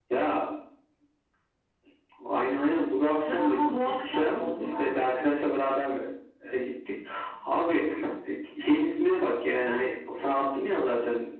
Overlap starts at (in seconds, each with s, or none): 3.3 s